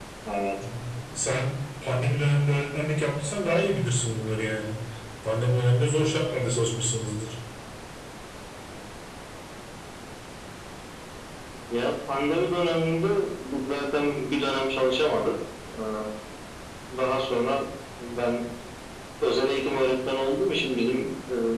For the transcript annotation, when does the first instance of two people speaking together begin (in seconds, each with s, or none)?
none